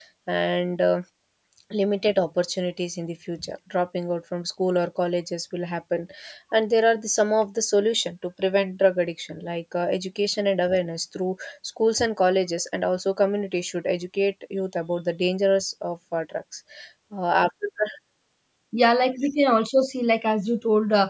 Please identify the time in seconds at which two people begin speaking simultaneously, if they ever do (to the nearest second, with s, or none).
none